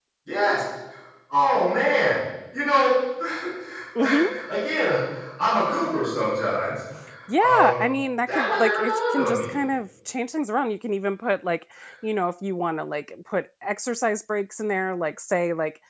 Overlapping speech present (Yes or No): Yes